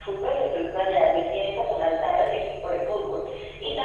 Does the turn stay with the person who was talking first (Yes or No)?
Yes